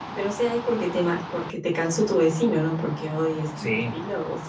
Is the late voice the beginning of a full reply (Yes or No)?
Yes